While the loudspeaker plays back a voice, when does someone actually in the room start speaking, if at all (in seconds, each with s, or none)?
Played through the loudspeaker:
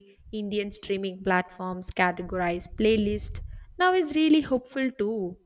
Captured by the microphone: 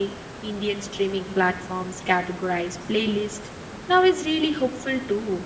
none